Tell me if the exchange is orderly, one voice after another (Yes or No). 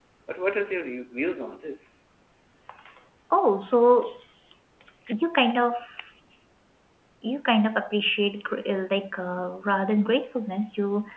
Yes